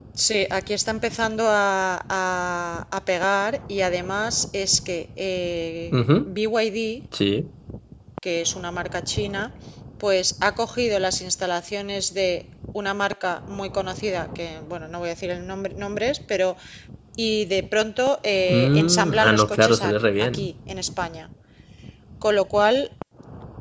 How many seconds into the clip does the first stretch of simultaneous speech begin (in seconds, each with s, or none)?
18.5 s